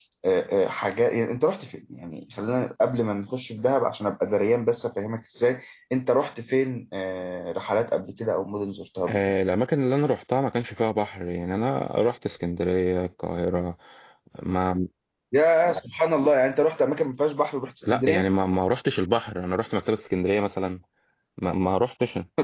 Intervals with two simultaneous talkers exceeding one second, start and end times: none

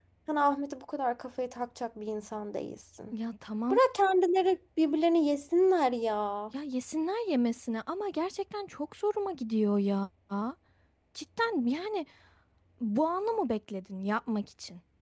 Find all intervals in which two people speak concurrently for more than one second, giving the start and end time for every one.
none

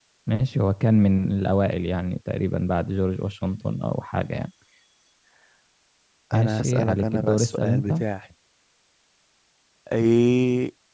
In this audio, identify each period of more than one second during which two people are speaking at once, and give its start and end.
6.3-8.0

